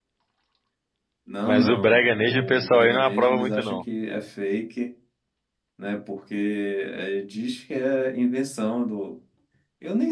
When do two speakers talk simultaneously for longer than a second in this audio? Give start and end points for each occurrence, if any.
1.4-3.8

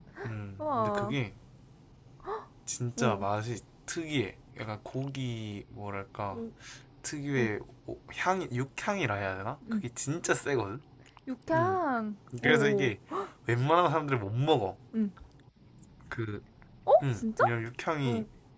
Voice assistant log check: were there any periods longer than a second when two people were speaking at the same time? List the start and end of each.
none

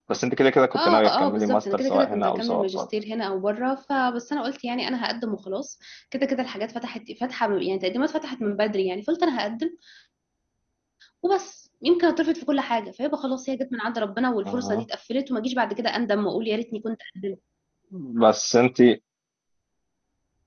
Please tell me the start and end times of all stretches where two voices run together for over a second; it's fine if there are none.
0.7-2.9

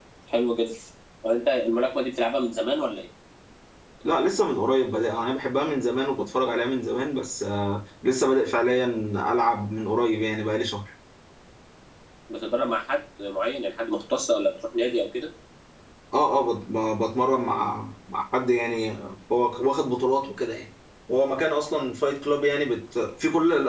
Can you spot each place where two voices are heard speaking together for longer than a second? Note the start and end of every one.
none

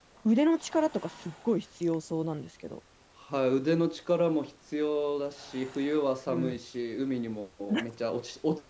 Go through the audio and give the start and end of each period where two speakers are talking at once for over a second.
none

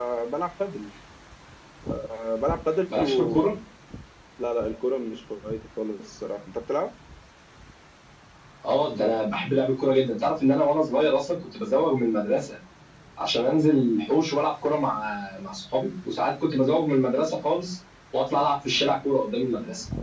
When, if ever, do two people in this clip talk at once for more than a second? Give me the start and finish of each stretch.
none

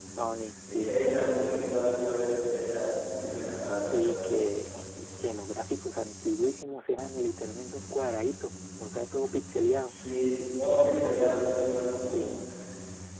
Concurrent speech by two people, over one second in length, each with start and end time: none

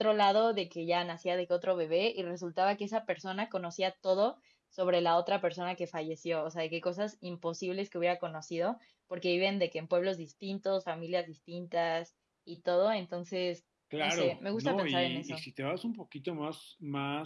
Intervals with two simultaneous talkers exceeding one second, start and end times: 14.0-15.4

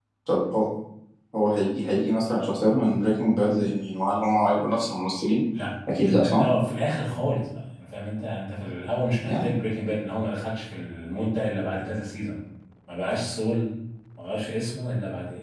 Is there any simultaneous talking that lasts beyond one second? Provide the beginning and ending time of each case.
none

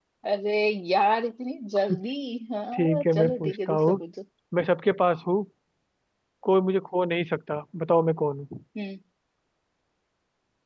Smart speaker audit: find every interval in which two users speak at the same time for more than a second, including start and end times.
2.7-4.0

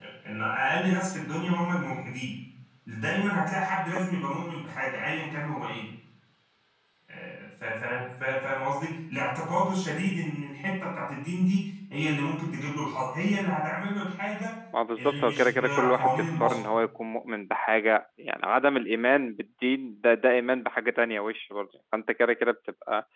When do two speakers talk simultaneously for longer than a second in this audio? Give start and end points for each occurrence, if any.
15.0-16.6

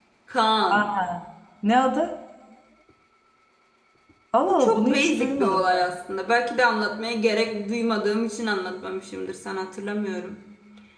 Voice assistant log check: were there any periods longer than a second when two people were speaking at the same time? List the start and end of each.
4.5-5.9

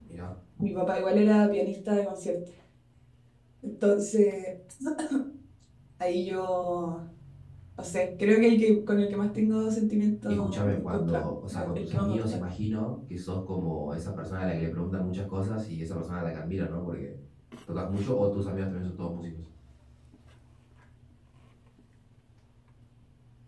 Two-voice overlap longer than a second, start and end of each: 10.3-12.4

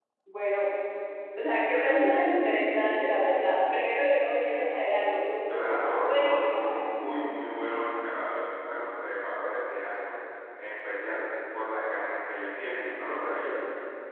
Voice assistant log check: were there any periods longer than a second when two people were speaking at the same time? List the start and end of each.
5.6-6.8

